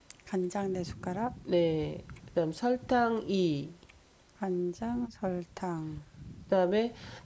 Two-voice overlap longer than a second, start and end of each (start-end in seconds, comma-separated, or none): none